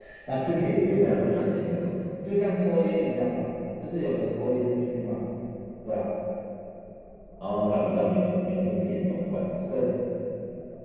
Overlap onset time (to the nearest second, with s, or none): none